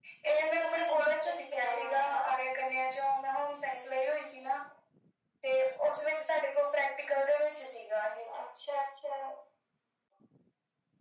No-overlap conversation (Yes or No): No